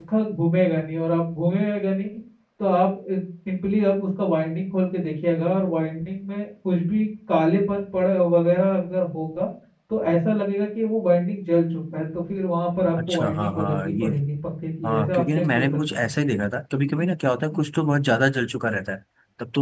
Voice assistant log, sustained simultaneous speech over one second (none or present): present